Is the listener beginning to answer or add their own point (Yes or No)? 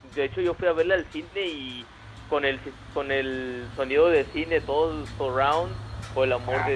No